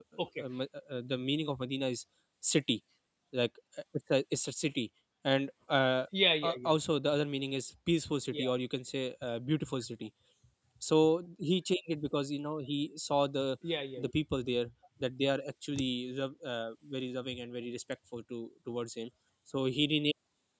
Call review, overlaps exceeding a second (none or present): none